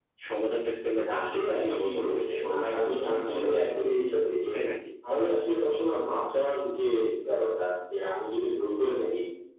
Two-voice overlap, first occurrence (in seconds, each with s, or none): 0.9 s